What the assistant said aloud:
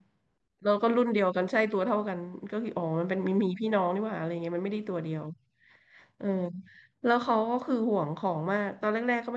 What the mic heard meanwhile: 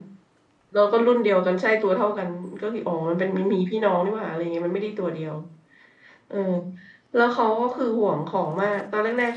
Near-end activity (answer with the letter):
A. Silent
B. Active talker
A